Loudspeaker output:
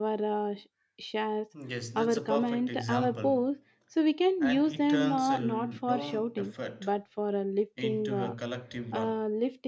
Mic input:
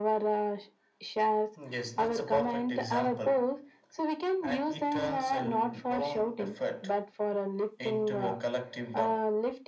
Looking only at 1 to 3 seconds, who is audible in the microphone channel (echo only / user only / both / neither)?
echo only